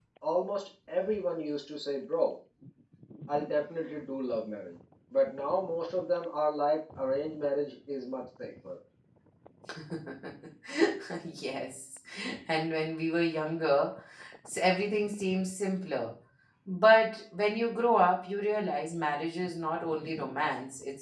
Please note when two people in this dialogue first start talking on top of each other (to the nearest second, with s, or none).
none